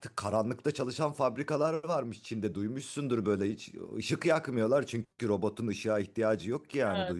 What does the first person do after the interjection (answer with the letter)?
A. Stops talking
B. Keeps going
A